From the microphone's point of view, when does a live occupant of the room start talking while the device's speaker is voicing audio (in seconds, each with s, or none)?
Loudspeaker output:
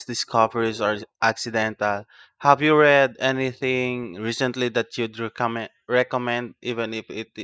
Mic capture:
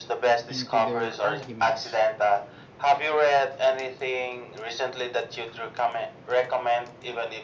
0.5 s